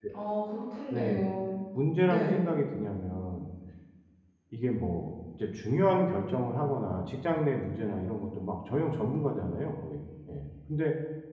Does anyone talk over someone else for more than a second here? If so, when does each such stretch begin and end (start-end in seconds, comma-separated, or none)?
none